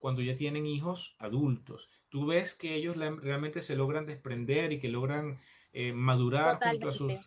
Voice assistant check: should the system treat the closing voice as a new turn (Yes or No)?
Yes